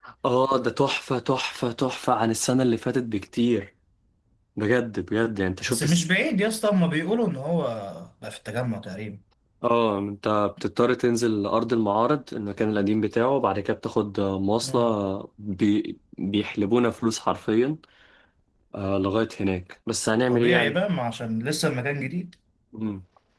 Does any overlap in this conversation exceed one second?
No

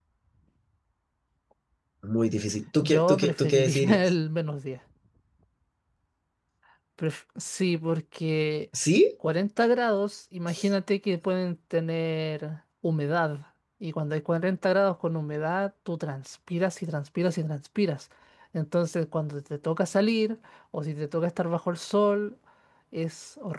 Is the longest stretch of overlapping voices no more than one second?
No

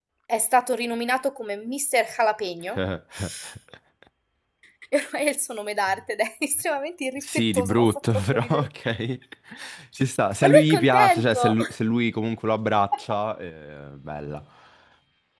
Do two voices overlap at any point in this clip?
Yes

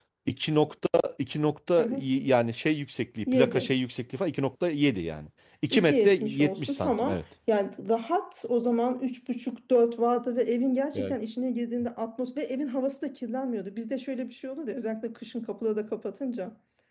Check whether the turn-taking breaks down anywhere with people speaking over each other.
Yes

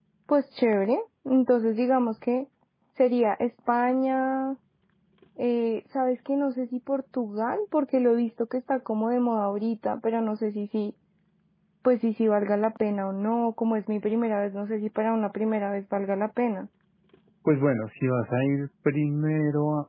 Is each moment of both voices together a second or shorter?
Yes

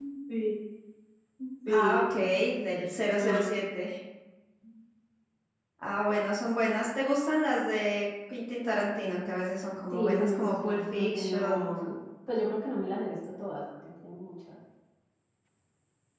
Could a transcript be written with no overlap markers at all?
No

